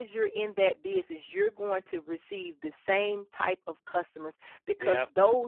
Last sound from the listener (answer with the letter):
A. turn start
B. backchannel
B